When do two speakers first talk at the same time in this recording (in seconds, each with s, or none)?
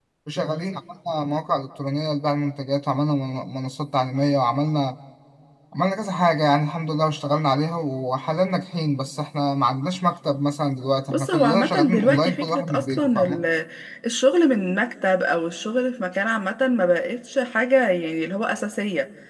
11.1 s